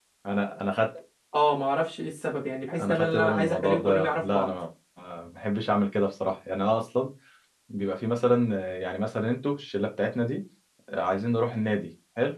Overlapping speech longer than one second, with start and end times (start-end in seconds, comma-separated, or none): 2.8-4.5